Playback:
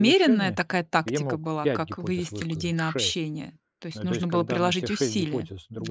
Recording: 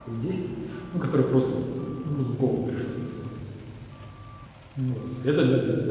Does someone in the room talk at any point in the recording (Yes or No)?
Yes